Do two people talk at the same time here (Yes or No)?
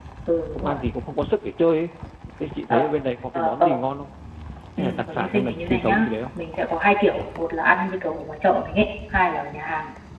Yes